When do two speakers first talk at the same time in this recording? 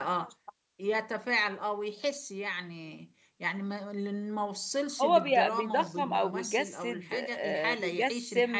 5.0 s

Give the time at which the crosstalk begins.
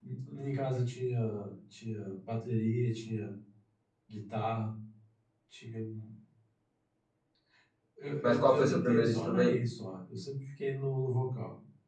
8.2 s

